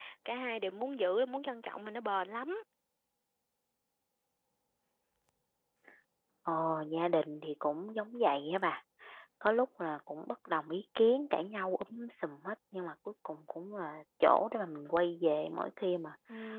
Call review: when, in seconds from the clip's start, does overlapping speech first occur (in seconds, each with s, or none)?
none